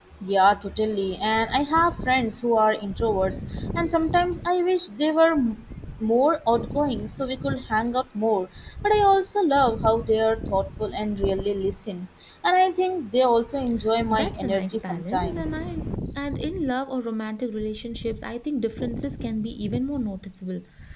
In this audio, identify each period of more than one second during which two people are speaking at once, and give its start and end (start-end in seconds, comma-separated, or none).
14.1-15.6